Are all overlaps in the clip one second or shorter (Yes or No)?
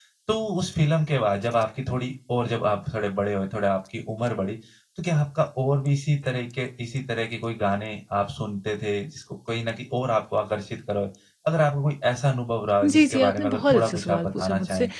No